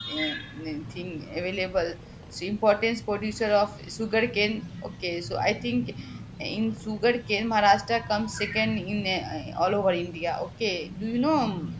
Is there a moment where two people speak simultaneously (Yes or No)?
No